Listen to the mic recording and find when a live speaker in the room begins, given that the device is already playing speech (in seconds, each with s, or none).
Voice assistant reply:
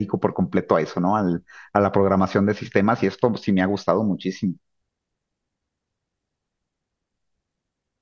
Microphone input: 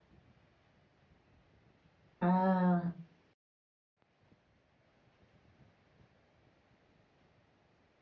2.2 s